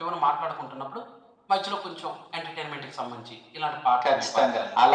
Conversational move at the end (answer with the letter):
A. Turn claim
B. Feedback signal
A